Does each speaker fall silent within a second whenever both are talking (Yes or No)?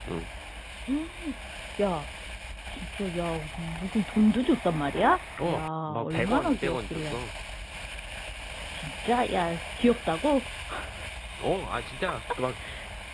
No